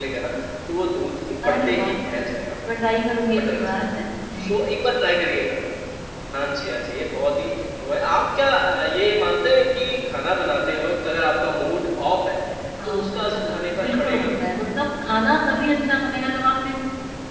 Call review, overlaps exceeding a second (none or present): present